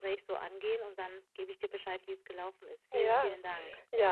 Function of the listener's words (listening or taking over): taking over